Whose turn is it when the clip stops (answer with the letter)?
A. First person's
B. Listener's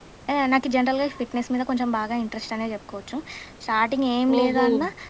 A